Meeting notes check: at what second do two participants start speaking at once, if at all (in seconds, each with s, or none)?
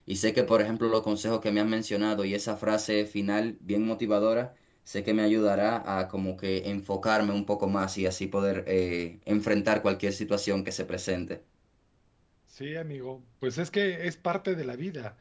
none